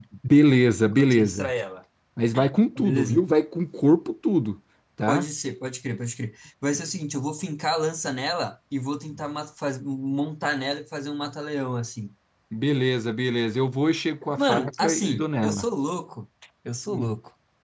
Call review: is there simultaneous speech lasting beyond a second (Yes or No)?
Yes